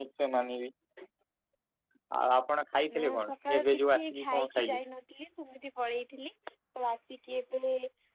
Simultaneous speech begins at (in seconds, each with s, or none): 3.0 s